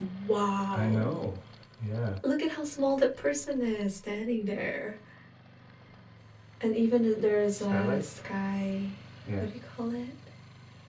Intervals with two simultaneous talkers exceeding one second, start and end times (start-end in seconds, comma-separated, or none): none